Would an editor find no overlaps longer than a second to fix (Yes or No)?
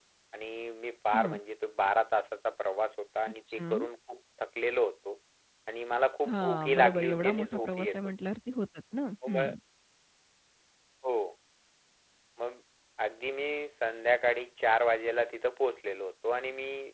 No